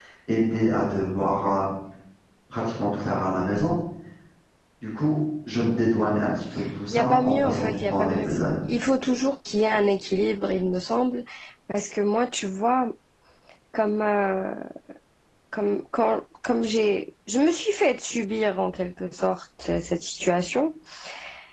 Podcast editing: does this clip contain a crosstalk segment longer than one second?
Yes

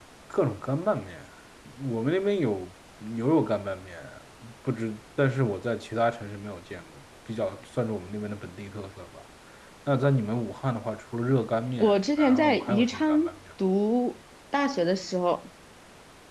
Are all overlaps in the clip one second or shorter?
No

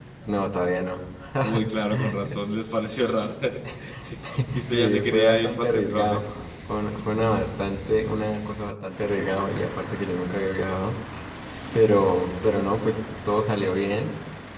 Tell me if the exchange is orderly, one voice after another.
No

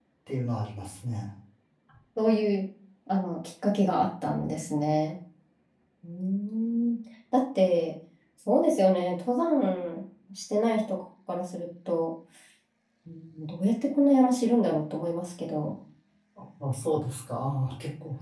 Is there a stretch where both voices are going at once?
No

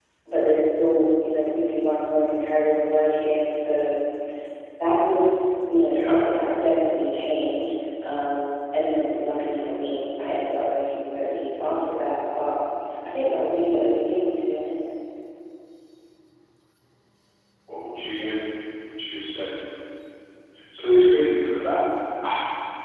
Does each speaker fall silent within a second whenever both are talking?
Yes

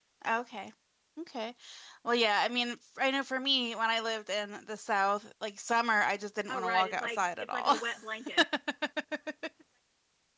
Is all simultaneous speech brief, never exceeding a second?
No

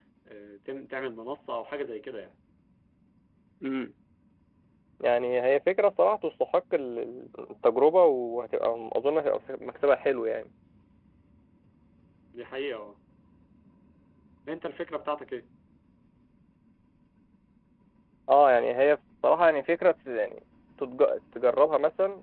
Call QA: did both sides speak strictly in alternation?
Yes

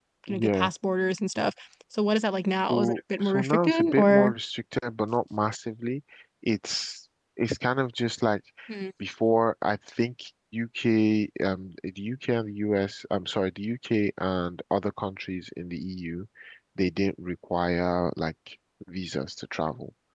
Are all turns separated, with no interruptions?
No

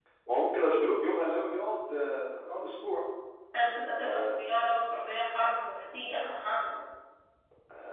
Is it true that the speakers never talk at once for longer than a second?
Yes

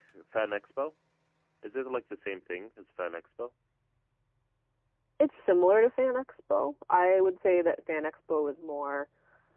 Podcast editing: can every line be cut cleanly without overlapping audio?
Yes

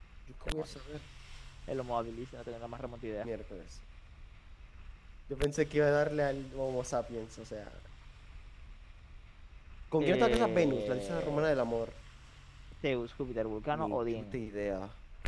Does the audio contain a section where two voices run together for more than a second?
Yes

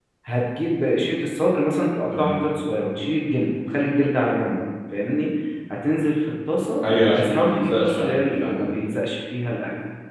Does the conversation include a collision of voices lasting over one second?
Yes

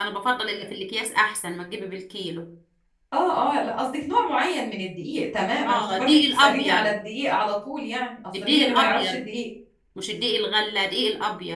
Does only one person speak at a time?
No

